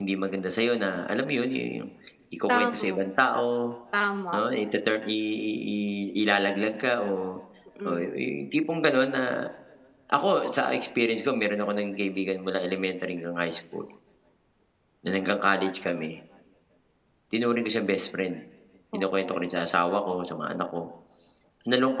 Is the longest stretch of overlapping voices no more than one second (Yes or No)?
Yes